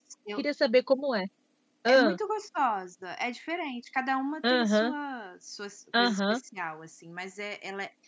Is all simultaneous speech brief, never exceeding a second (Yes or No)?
Yes